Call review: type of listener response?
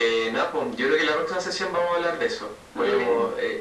listening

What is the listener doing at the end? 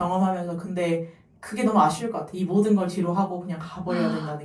taking over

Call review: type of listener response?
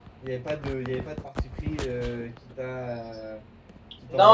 taking over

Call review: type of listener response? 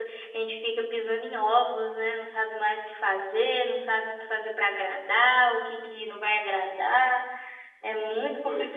listening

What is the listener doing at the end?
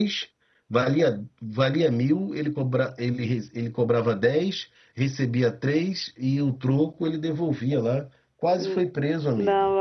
taking over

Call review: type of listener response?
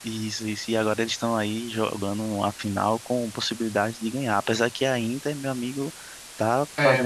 taking over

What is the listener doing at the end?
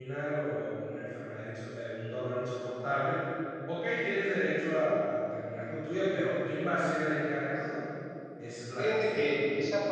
taking over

